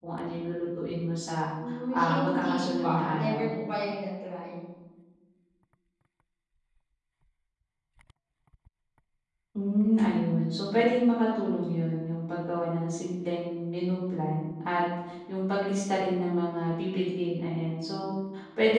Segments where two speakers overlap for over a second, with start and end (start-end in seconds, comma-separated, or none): 1.9-3.5